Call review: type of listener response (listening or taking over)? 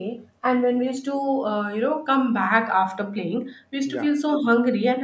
listening